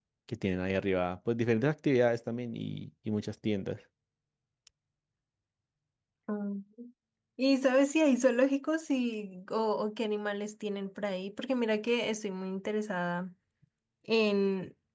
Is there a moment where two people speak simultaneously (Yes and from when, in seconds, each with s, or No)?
No